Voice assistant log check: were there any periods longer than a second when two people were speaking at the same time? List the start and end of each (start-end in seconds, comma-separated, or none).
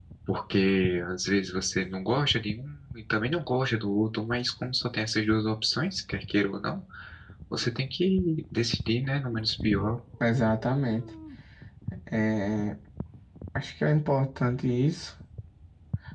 none